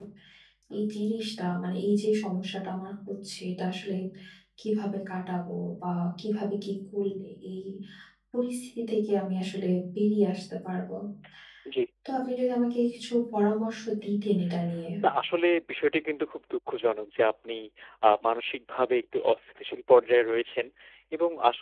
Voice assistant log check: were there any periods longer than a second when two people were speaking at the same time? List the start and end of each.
none

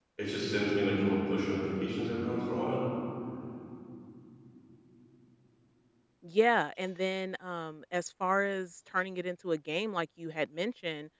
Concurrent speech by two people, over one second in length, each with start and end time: none

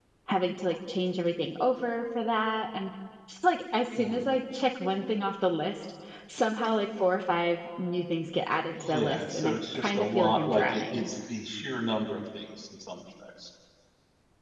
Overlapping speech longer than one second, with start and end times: 8.7-11.1

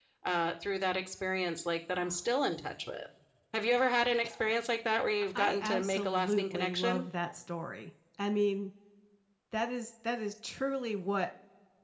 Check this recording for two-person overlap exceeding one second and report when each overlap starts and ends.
5.4-7.0

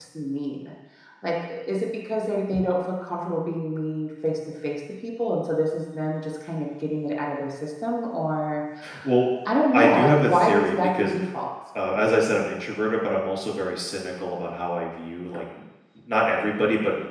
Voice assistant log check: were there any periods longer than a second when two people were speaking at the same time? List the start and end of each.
9.7-11.3

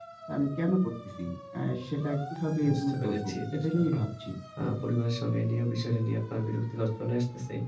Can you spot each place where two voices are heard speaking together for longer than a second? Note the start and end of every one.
2.7-4.0

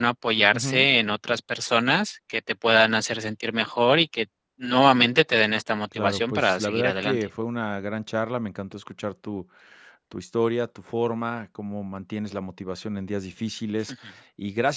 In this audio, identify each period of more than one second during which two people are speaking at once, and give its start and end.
5.9-7.2

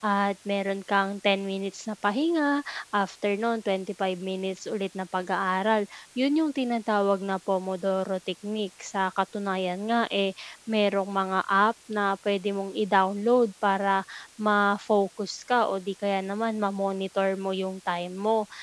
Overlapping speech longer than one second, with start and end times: none

